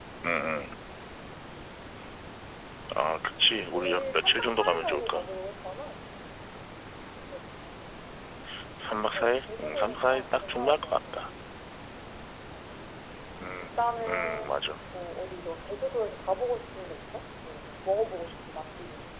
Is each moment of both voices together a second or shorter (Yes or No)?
No